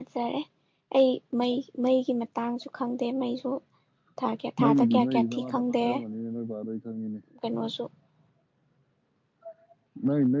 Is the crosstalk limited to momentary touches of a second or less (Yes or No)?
No